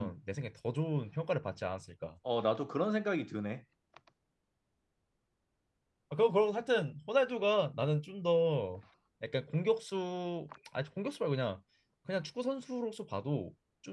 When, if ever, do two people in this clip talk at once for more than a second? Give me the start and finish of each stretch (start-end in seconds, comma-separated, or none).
none